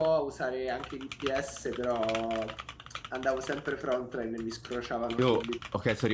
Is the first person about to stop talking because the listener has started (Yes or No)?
Yes